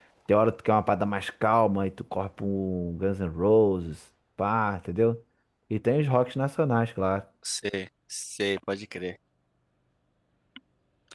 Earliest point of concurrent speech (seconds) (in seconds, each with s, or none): none